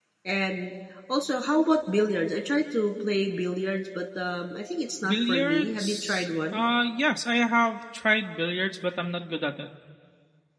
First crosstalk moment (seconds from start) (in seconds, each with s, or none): 5.0 s